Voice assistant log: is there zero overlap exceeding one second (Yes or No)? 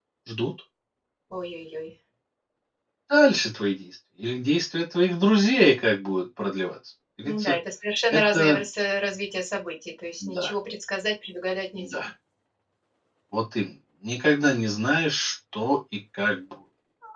Yes